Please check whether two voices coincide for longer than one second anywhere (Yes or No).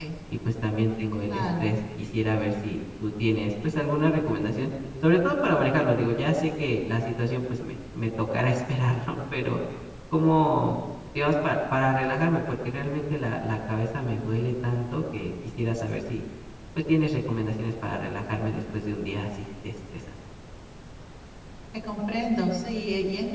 No